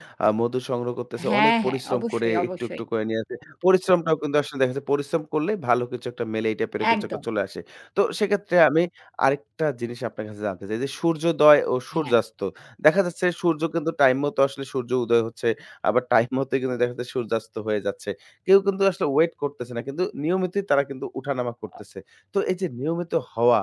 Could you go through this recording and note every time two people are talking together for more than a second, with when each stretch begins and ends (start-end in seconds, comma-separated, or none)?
1.3-2.8